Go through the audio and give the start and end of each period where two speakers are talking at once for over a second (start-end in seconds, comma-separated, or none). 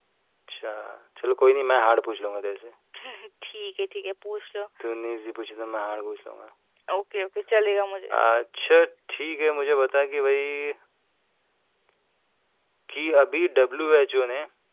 none